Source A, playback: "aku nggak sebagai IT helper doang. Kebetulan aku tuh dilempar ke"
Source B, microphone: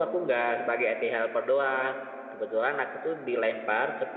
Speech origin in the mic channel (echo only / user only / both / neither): echo only